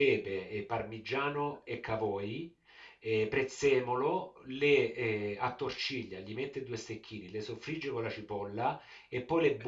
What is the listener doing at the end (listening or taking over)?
listening